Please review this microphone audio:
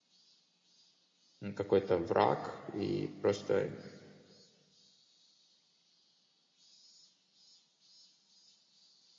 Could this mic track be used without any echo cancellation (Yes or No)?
Yes